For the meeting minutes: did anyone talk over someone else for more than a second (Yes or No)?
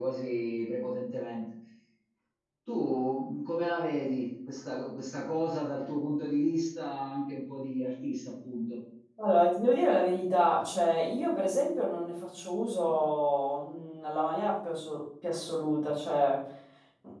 No